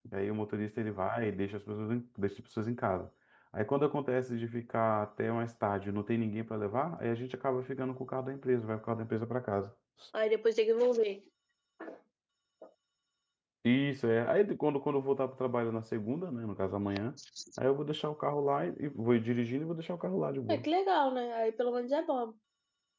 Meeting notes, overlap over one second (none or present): none